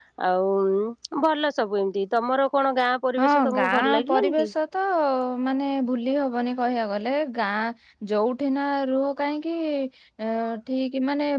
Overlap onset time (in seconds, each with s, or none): 3.2 s